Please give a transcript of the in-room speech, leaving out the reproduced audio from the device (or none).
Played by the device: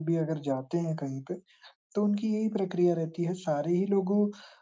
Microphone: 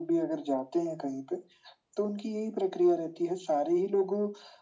none